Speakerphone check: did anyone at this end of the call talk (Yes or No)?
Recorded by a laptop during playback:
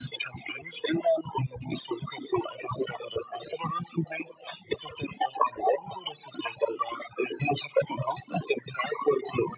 No